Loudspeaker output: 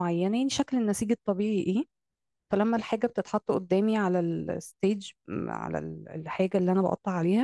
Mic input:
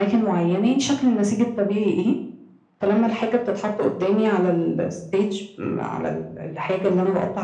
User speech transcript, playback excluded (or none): none